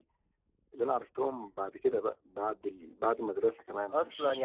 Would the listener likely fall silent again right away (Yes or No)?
No